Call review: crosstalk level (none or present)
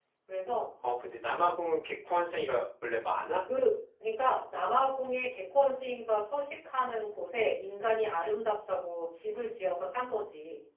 none